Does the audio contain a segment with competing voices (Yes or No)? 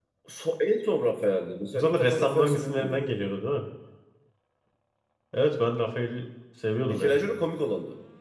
Yes